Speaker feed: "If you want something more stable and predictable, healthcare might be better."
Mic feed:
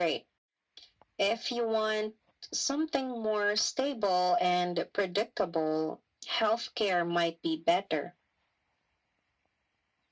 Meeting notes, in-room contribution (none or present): none